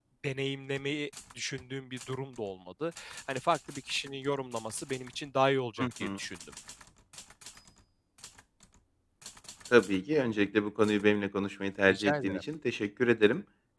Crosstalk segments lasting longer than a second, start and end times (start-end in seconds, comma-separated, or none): none